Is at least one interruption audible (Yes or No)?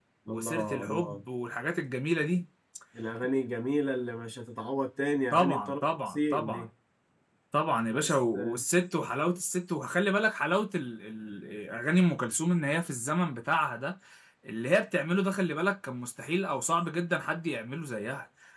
Yes